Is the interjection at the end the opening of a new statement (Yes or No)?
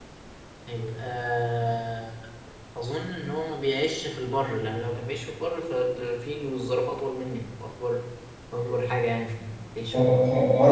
Yes